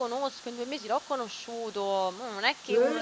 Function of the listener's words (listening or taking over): listening